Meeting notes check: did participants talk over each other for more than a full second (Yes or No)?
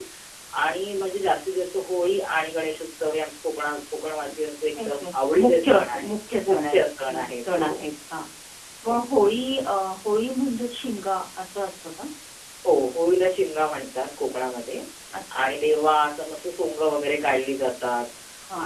Yes